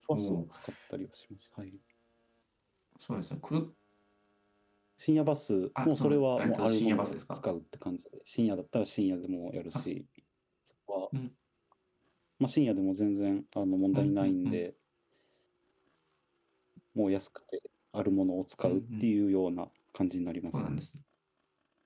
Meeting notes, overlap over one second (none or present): present